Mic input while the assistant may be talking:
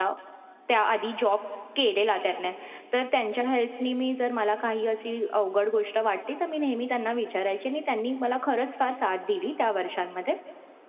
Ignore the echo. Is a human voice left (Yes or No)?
Yes